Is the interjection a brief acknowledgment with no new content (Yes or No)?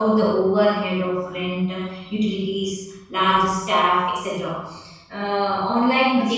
Yes